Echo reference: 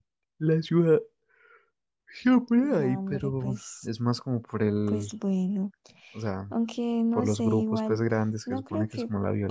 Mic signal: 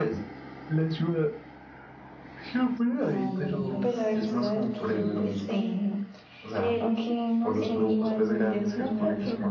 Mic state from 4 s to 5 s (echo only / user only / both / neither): both